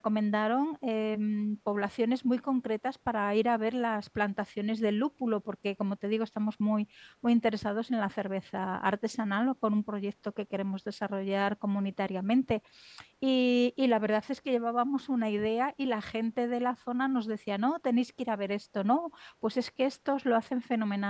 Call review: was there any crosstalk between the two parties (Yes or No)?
No